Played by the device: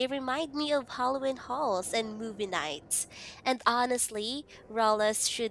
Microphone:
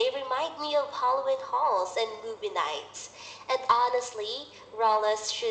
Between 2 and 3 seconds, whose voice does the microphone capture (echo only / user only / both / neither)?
echo only